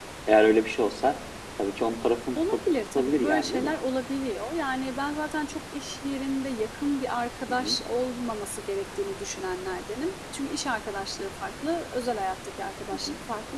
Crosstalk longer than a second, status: present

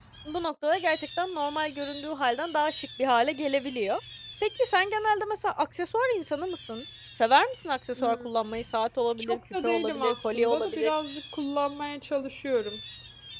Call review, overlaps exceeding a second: present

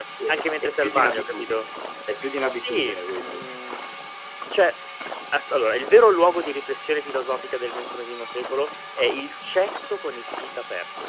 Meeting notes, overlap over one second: present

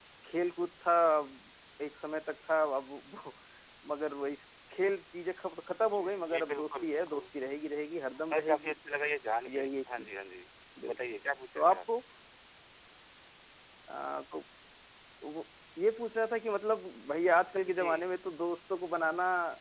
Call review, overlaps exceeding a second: present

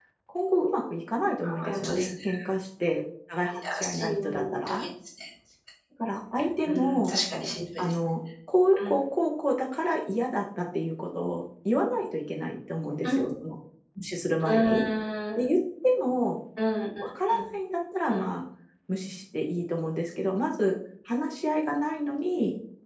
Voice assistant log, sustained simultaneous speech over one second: present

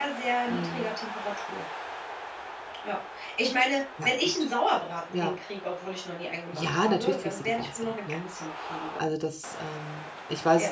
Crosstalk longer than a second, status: present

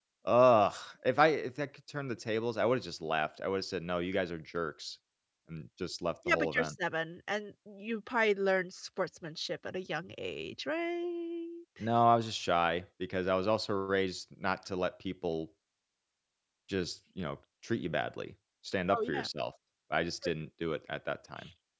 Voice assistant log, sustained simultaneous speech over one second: none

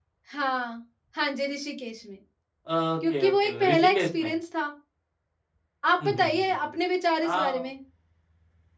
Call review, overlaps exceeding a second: present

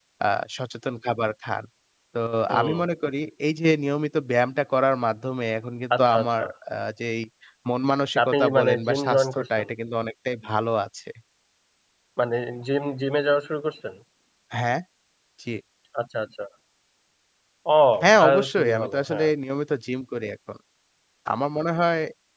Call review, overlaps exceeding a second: present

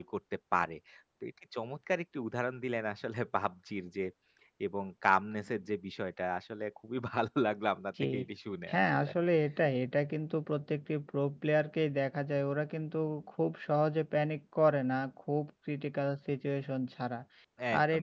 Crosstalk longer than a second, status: none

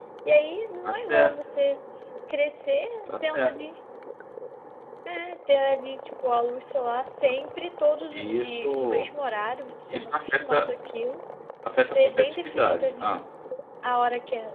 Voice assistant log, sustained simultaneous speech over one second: present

